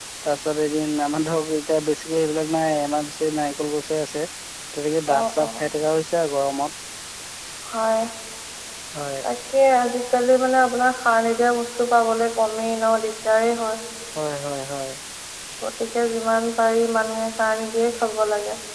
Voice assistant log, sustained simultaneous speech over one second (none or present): none